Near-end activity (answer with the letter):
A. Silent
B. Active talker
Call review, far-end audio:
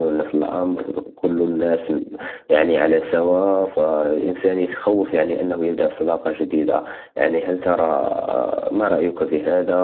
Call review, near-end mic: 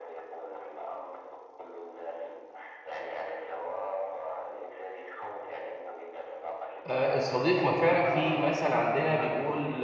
B